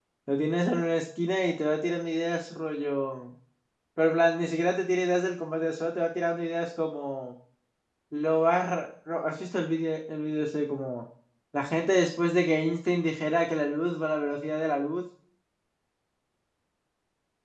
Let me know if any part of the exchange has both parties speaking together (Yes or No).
No